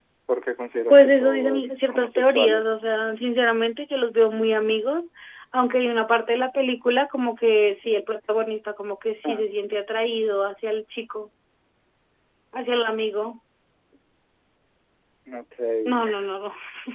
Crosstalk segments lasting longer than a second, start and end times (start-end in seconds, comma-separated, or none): 0.9-2.7